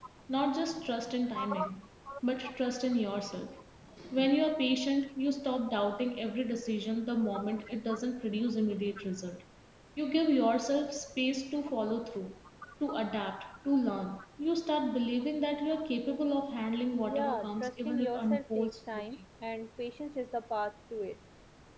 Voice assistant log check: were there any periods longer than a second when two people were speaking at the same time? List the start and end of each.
16.9-19.1

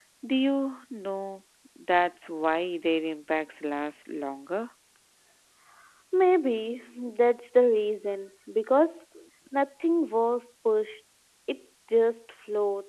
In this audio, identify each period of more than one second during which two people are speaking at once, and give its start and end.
none

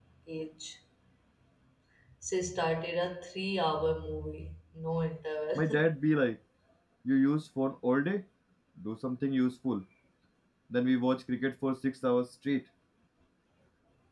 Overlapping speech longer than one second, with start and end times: none

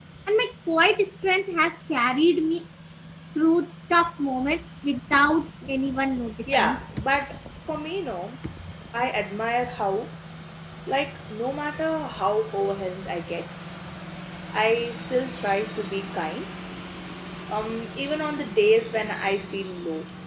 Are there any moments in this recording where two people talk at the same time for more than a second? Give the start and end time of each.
none

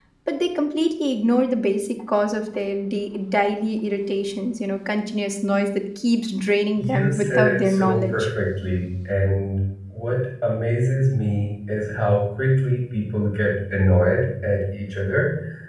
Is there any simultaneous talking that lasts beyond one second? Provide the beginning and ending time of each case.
6.8-8.3

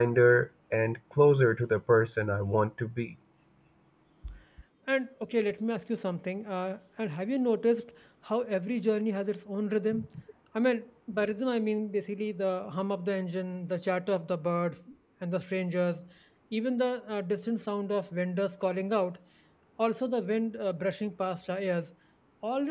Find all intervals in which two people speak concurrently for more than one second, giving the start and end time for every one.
none

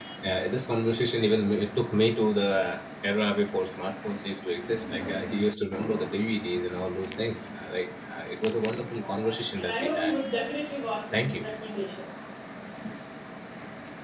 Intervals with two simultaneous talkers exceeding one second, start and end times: 8.9-10.1

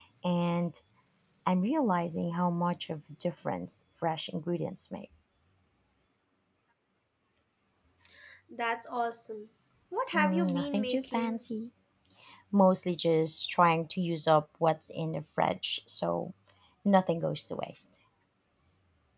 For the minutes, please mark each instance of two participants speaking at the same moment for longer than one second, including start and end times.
10.1-11.4

